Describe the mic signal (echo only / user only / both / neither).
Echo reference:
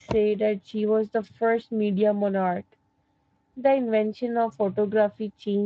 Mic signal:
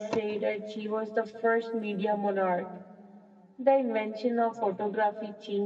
echo only